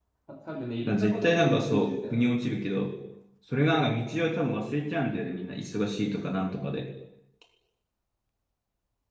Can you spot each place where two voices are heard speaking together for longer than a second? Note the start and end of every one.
0.9-2.3

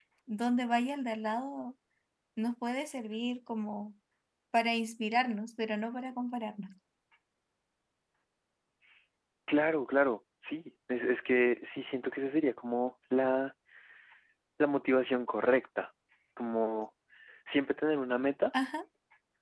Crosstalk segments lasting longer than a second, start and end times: none

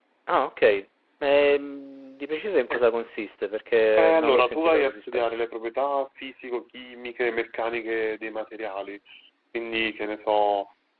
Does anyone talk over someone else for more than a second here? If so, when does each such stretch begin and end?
4.0-5.3

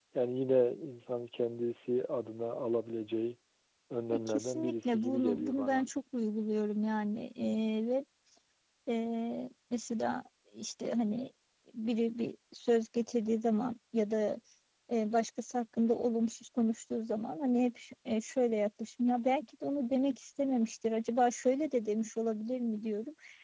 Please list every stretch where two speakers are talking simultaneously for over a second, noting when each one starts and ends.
4.1-5.9

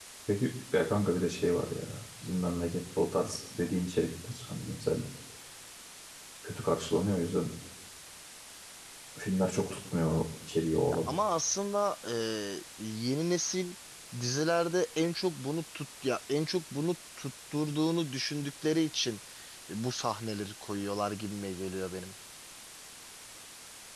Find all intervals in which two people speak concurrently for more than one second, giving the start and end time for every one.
none

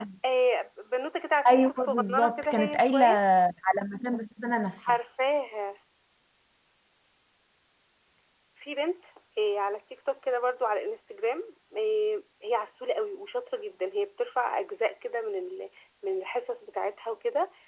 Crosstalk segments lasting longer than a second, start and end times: 1.4-3.0

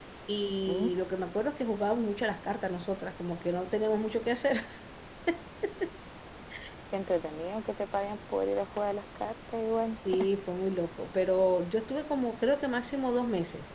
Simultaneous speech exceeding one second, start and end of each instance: none

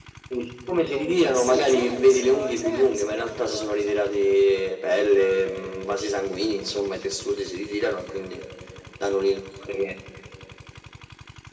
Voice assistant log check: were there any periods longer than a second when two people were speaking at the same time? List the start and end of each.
0.9-4.0

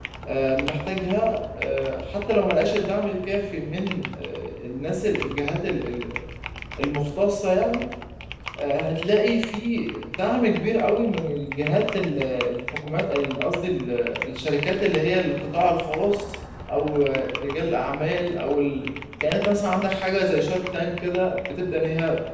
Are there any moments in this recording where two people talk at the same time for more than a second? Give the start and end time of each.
none

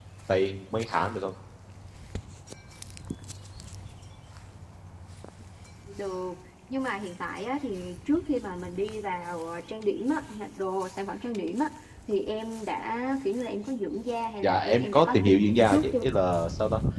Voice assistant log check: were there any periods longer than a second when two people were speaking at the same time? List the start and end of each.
14.4-16.1

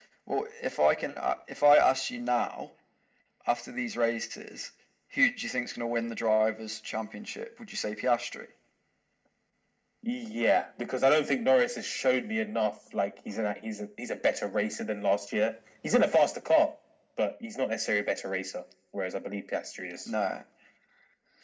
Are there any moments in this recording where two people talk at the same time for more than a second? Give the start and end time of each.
none

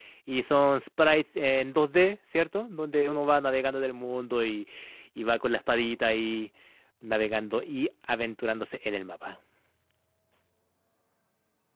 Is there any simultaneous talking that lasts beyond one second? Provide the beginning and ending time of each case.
none

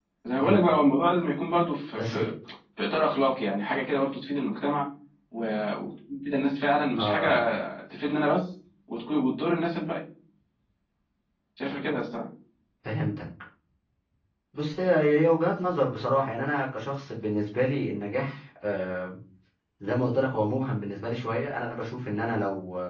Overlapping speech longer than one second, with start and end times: none

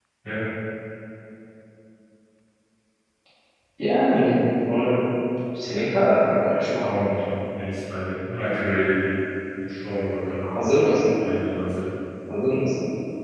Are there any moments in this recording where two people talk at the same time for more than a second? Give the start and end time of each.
none

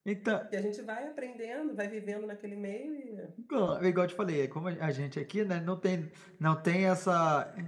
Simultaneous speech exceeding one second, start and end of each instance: none

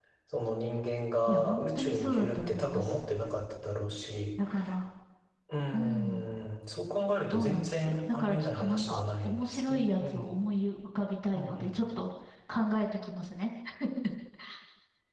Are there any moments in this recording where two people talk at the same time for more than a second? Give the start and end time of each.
1.3-3.0, 7.3-10.4

